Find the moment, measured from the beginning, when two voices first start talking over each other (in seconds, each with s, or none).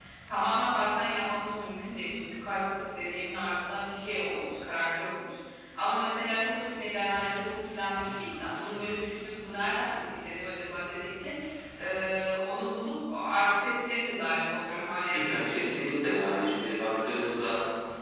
15.3 s